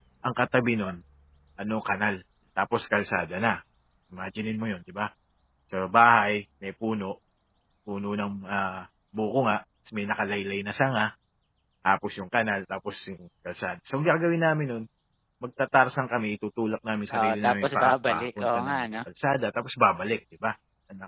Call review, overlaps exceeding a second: present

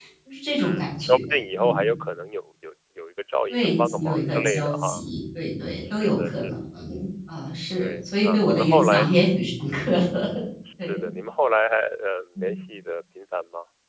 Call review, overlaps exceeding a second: present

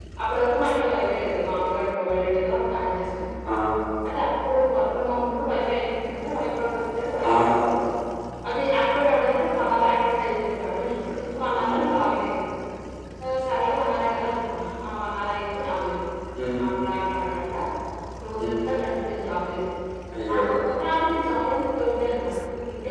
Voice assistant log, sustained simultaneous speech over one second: none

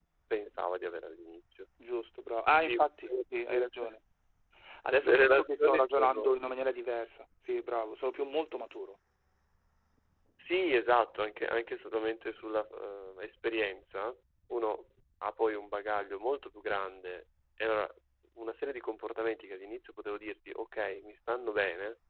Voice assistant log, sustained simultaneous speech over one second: present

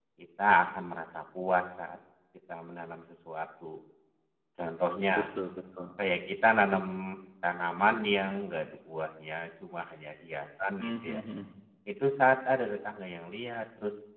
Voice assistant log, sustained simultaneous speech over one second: none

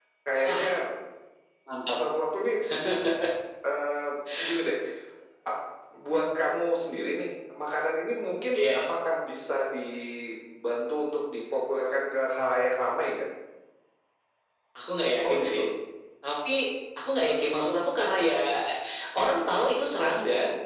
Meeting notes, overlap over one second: none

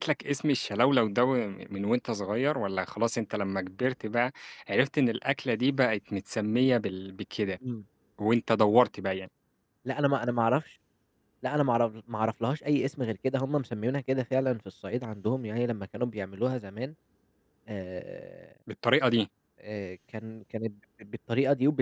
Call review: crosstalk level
none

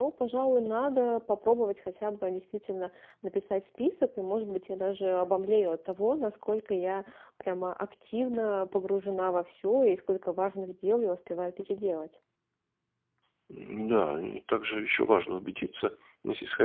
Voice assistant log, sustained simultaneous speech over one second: none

